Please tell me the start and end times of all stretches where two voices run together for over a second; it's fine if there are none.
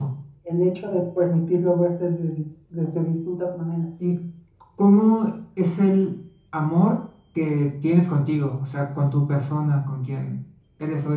none

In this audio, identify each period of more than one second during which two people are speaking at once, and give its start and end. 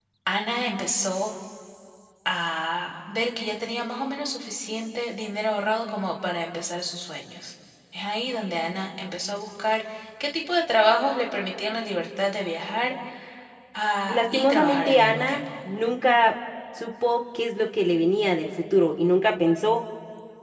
14.1-15.4

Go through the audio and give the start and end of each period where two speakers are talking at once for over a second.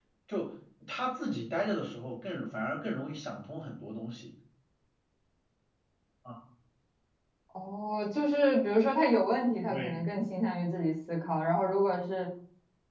none

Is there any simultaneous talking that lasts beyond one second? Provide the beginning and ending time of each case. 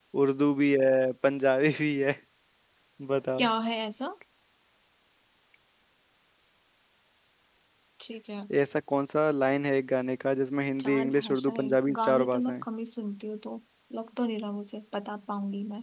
10.8-12.6

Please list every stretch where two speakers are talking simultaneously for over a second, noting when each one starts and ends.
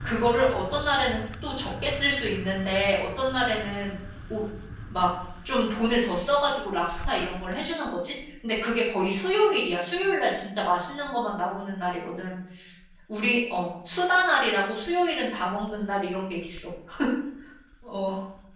none

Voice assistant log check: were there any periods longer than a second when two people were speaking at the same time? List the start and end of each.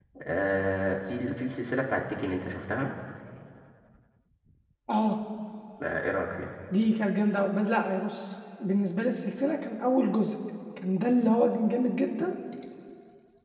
none

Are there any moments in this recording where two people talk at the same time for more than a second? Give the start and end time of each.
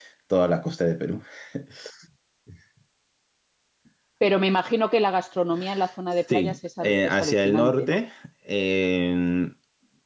6.3-8.0

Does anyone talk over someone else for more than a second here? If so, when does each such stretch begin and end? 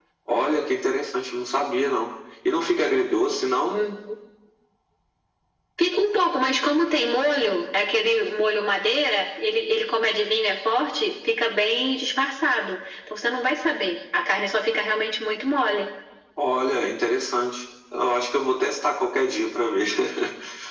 none

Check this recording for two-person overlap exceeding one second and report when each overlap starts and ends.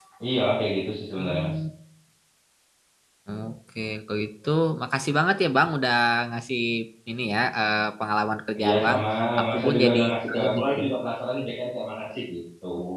9.5-10.7

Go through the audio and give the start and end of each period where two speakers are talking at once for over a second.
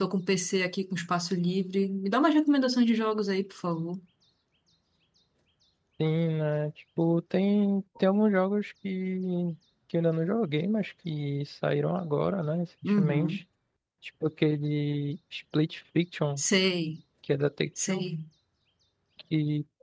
none

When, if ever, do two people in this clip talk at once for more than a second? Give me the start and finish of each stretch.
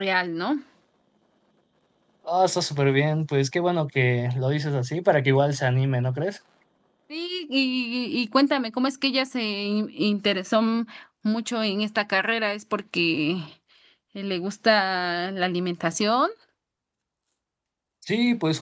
none

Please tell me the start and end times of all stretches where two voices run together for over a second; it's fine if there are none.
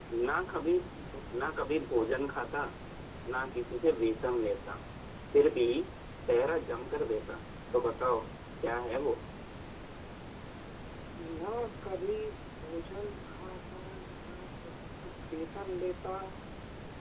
none

